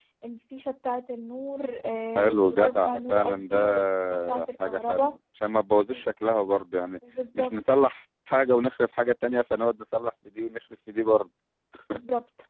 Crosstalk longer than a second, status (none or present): present